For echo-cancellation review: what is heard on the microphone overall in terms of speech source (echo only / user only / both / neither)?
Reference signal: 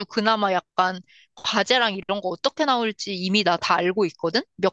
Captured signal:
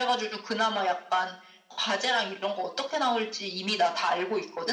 echo only